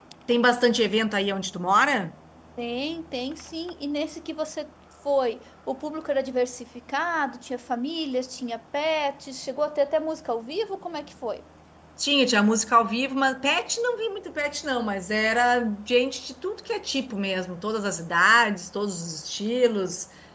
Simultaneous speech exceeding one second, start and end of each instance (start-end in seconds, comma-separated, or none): none